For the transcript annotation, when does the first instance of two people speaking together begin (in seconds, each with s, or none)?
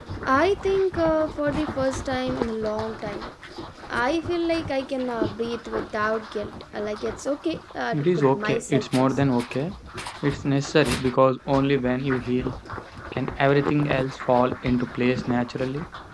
7.9 s